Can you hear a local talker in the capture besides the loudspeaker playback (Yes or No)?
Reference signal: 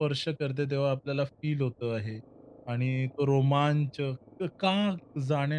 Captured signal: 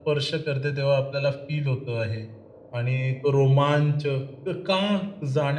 No